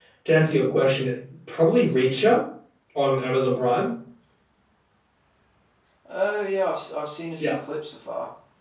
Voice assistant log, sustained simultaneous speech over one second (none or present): none